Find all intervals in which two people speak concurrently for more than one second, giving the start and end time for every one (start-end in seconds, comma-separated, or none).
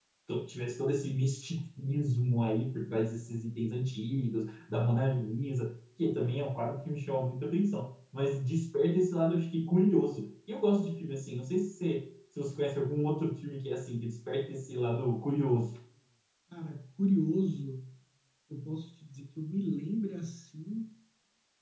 none